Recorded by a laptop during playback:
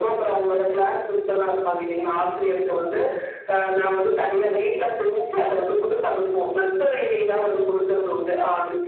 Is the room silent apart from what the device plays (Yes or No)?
Yes